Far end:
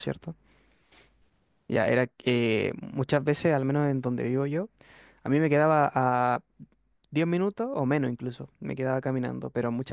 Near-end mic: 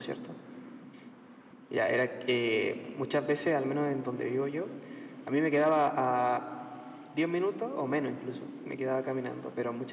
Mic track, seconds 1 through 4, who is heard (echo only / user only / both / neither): echo only